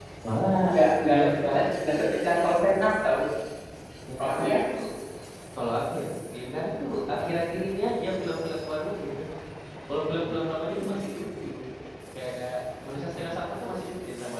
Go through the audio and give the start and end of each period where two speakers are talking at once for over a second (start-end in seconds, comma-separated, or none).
0.7-2.2